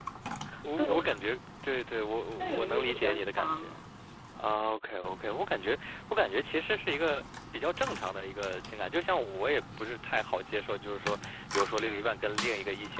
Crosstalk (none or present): present